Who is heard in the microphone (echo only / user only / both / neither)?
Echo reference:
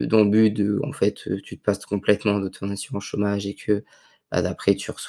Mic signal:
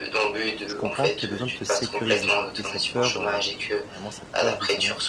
both